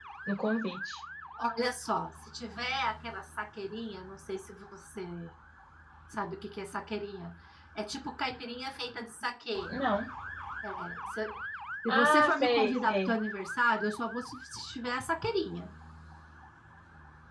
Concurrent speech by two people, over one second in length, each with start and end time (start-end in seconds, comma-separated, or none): 11.9-13.1